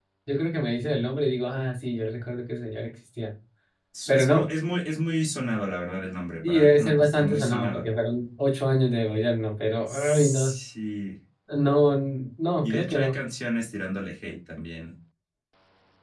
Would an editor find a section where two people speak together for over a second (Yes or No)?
Yes